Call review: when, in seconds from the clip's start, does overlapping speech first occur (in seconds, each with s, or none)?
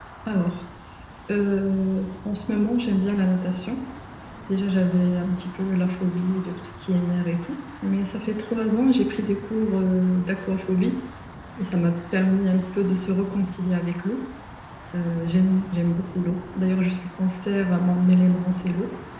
none